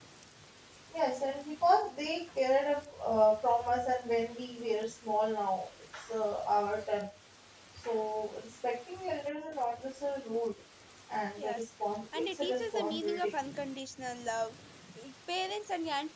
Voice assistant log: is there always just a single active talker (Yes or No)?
No